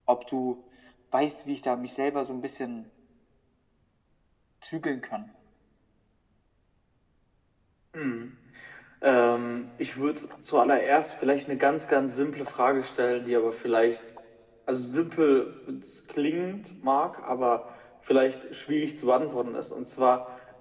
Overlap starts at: none

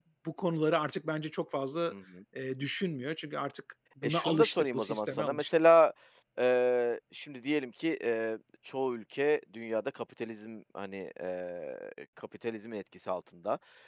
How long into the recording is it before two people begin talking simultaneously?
4.0 s

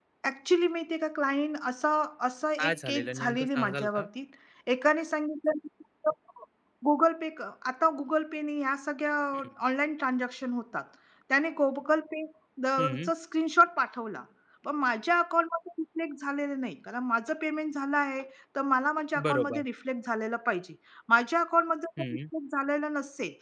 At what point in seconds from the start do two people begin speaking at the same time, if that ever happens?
2.6 s

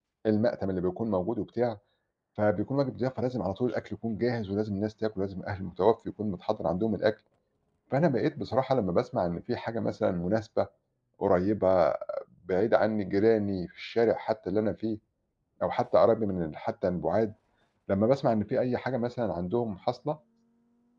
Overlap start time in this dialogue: none

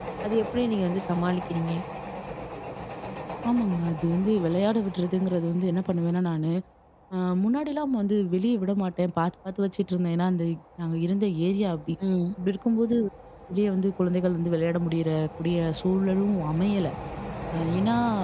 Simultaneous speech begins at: none

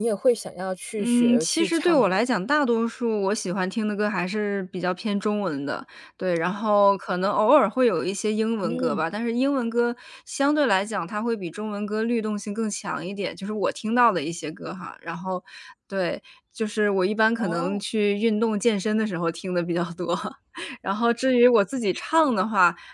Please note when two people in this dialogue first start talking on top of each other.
1.0 s

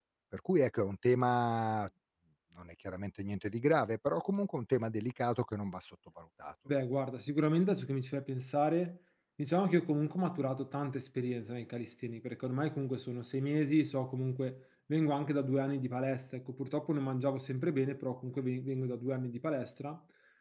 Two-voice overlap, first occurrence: none

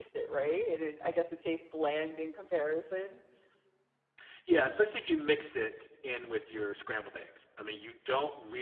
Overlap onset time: none

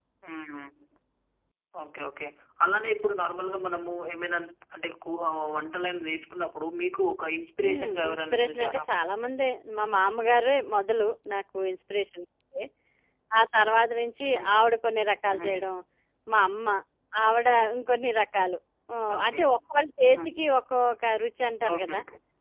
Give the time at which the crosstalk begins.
7.6 s

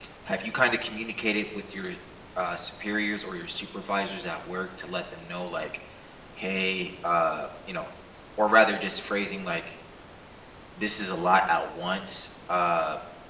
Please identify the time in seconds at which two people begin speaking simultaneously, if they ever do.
none

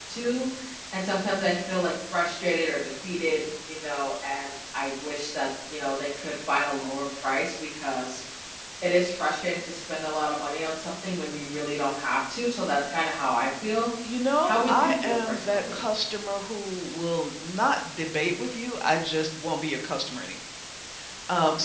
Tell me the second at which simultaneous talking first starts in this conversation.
14.4 s

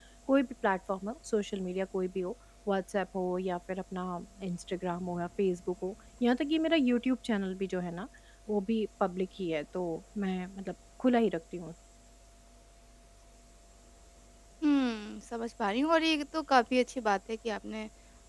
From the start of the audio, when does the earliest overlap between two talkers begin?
none

